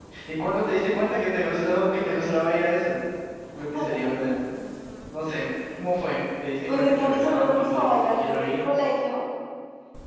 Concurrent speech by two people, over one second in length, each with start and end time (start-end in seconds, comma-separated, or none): 6.7-8.7